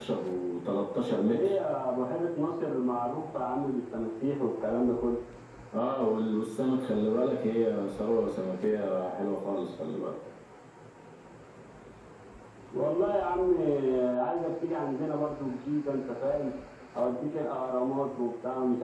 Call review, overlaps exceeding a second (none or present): none